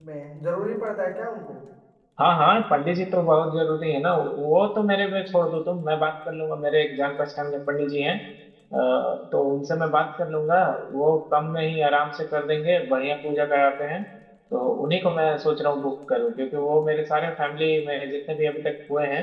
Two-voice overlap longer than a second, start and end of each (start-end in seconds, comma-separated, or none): none